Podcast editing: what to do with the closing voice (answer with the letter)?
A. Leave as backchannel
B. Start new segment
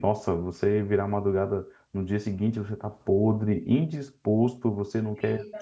A